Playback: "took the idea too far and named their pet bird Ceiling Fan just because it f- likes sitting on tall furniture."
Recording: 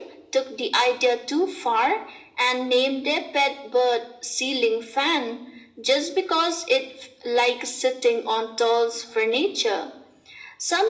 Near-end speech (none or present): none